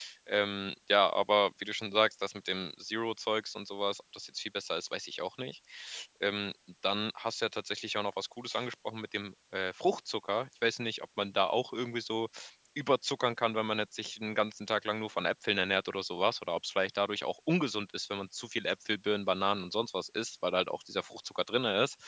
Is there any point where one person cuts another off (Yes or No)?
No